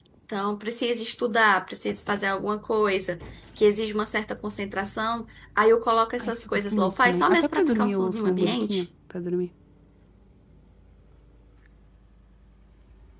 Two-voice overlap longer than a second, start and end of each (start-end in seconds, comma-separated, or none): 6.2-8.8